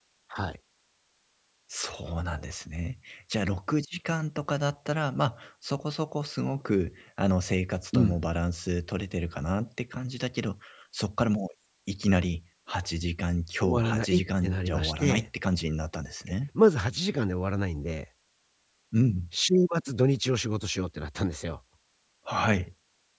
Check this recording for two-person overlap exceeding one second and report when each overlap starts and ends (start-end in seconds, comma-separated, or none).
13.8-15.3